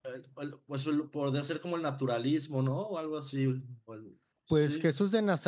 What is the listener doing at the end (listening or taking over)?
taking over